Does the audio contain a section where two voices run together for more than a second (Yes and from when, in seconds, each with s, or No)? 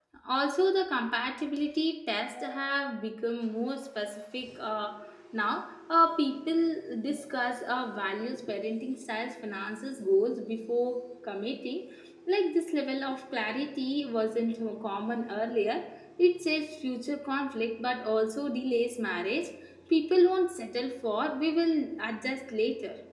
No